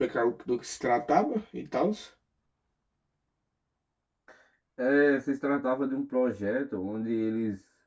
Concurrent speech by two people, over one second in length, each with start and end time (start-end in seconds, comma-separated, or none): none